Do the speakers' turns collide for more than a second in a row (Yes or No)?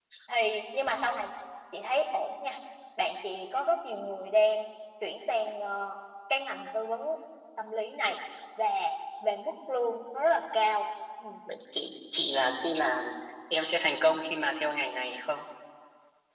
No